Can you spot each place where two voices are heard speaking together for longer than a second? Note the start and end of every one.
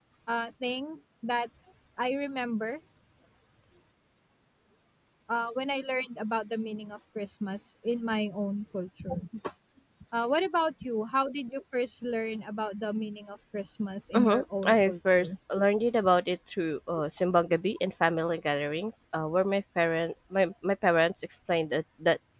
14.1-15.4

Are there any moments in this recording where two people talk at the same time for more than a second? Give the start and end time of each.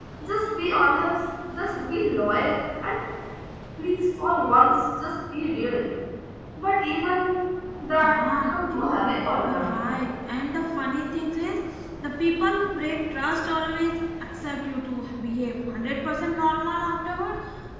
8.0-9.8

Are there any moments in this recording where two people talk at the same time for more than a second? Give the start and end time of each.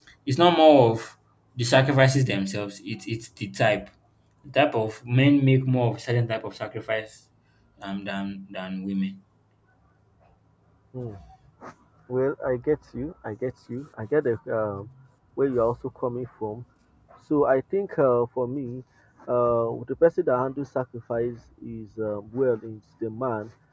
none

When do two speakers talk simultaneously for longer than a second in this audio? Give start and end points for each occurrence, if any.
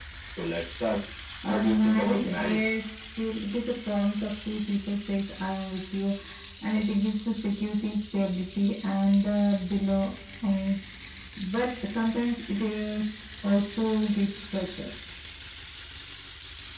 1.4-2.6

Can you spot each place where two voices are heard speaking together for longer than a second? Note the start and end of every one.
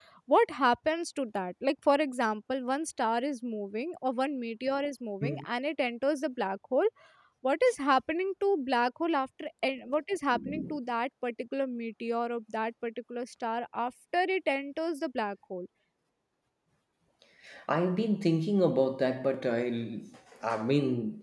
none

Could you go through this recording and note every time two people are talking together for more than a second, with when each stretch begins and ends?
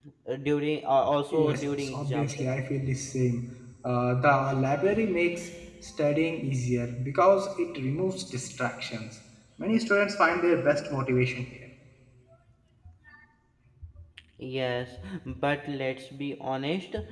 1.3-2.5

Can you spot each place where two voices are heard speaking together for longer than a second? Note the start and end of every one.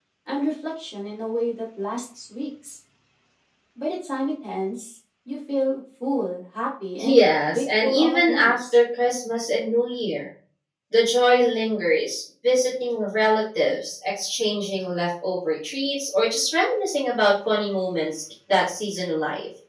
7.0-8.8

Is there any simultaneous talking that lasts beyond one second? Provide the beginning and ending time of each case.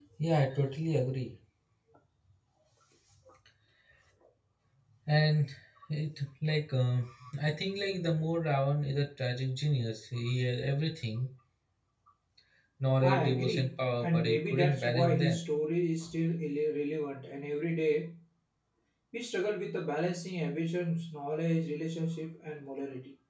13.0-15.4

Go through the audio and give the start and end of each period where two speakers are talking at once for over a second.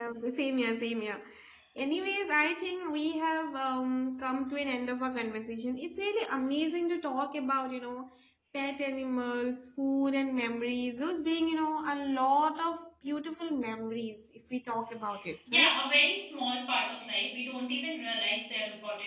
none

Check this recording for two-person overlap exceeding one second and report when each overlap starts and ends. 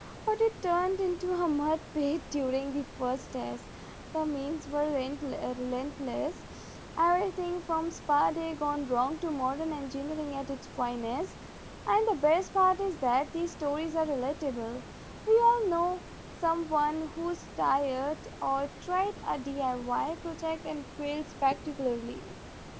none

